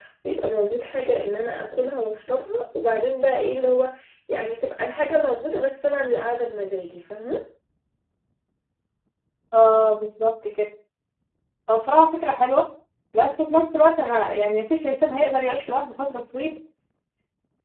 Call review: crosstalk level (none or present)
none